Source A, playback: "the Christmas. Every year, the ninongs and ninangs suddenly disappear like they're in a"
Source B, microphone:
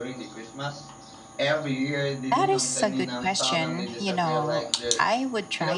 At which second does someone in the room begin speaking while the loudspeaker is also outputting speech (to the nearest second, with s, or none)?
2 s